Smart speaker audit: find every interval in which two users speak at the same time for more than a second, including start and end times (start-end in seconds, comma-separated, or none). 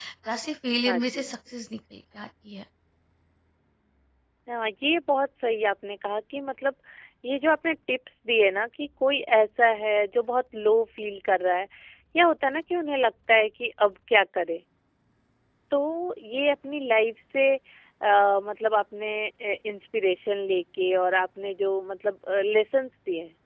none